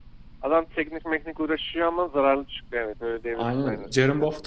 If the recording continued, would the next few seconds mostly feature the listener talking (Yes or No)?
Yes